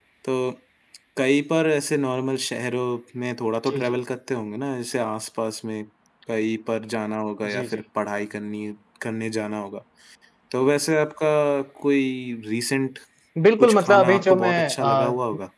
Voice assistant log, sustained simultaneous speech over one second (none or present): present